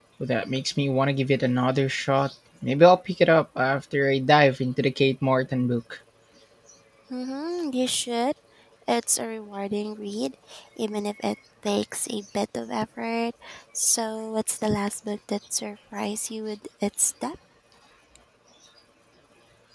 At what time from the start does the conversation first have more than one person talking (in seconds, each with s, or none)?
none